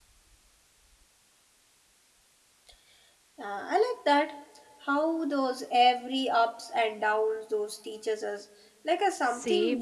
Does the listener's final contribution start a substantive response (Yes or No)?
Yes